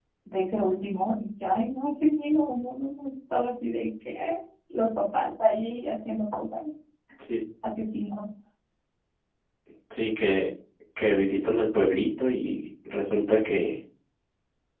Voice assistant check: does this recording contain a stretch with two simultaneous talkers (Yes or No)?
No